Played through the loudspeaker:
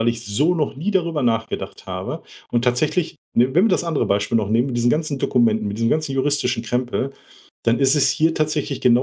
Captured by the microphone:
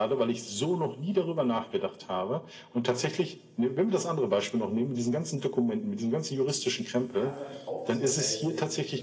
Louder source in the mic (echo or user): echo